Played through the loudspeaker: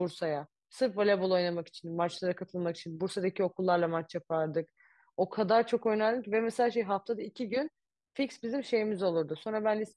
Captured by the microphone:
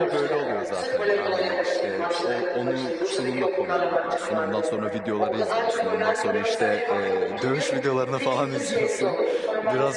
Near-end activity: present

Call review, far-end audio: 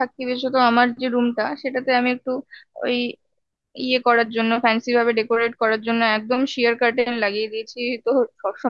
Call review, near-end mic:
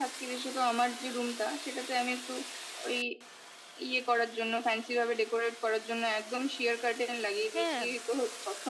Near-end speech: present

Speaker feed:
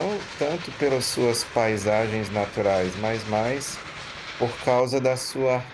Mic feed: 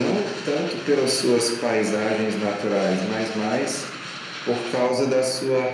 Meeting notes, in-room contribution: none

